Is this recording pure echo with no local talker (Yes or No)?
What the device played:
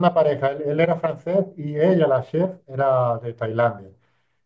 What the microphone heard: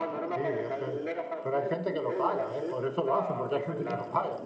No